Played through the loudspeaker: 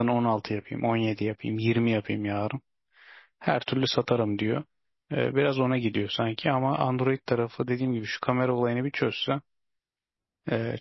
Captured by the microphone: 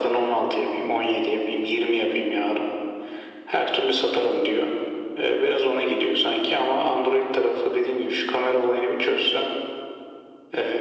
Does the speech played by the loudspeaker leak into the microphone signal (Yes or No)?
Yes